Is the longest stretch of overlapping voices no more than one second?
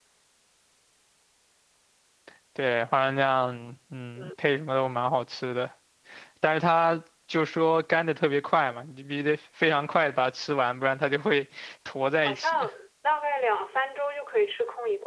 Yes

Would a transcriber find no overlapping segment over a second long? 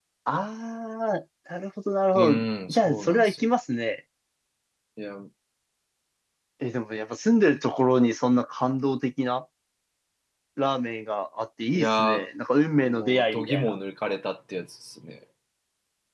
No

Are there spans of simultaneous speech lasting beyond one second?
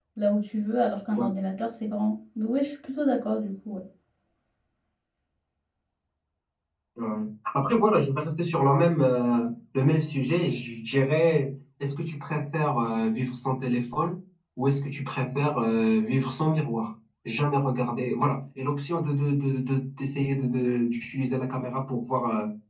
No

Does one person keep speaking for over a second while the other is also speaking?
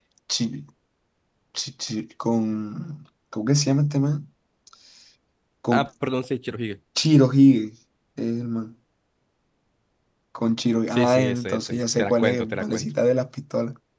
Yes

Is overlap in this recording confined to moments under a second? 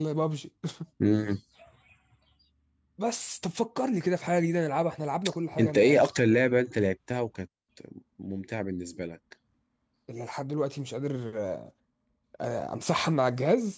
Yes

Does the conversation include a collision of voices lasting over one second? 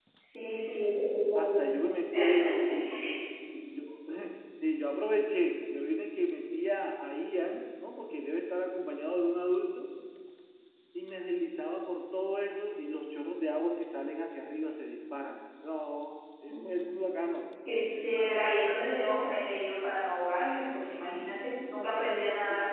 No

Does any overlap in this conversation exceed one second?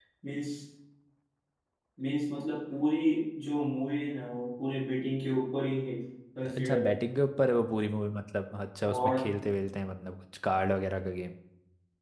No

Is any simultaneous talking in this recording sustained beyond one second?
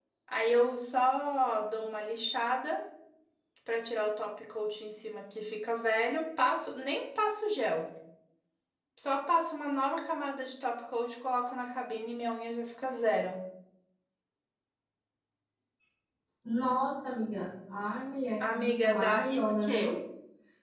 Yes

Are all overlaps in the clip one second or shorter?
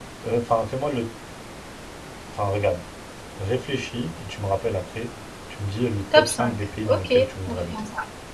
No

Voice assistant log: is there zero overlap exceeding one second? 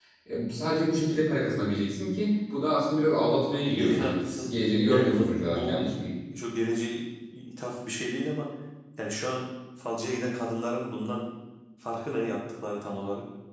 No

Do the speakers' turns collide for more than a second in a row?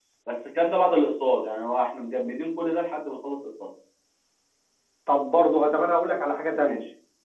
No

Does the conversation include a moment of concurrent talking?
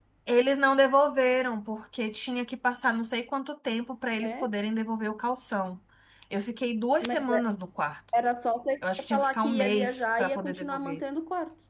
Yes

